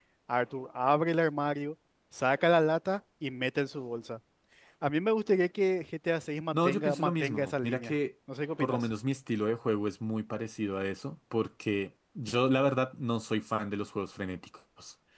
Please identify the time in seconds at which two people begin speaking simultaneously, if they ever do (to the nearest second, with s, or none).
7 s